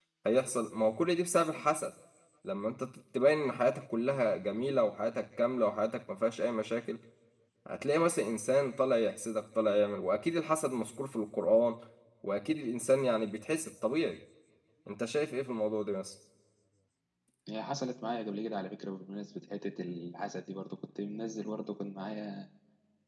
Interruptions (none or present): none